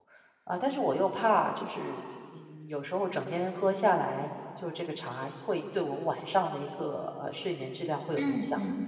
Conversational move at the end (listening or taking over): taking over